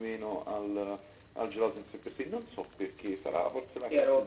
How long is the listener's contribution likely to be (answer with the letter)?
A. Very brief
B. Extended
B